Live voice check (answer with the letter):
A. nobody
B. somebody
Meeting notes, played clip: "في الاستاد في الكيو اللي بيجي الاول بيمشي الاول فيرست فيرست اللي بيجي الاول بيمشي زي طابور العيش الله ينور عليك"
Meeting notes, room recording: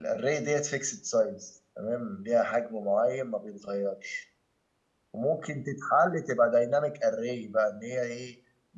B